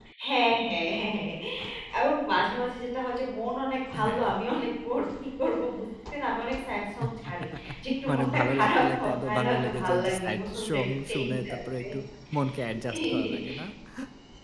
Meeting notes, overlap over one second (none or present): present